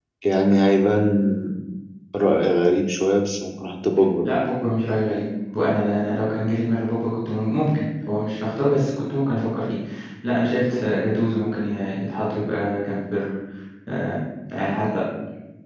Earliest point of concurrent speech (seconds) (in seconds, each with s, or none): none